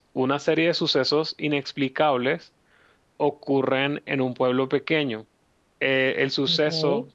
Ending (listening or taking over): listening